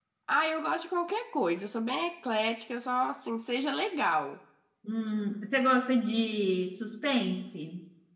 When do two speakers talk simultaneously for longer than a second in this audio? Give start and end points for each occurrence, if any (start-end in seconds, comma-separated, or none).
none